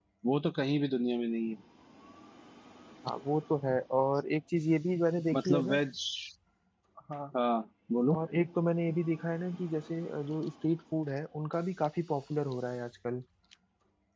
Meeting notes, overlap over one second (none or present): none